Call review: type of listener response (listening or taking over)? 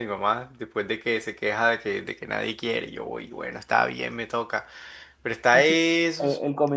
taking over